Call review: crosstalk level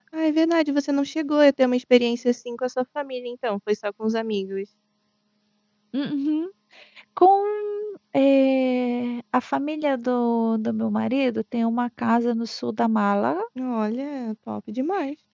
none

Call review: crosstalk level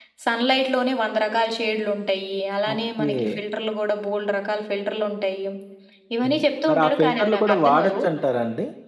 present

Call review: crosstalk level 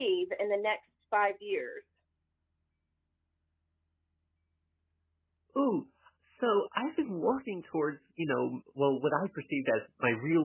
none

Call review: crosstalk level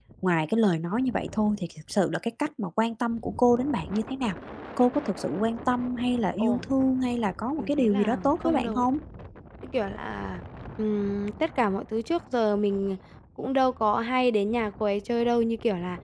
present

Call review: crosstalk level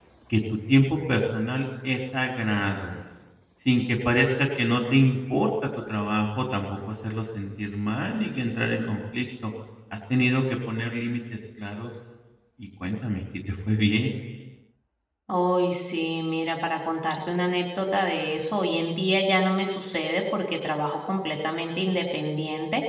none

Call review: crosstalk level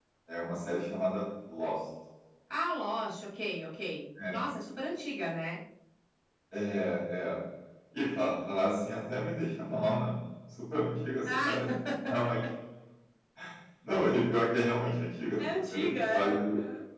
present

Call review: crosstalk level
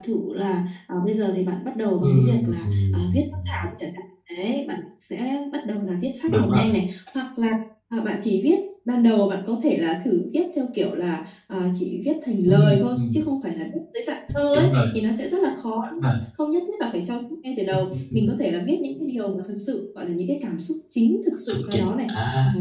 present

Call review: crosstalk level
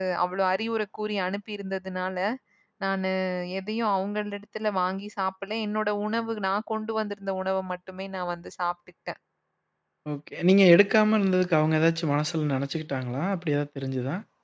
none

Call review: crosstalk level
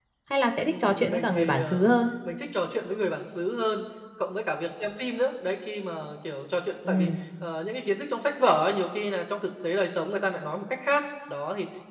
present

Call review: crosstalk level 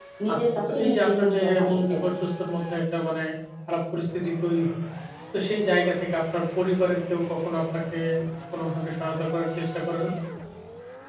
present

